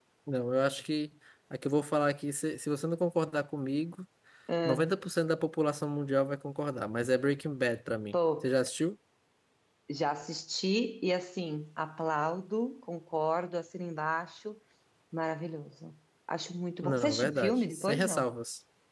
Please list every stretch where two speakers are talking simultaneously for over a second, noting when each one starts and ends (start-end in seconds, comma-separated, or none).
16.8-18.2